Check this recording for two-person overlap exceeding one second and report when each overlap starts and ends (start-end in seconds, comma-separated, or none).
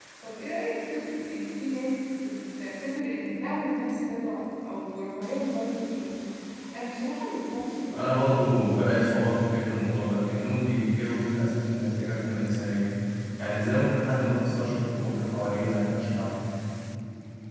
none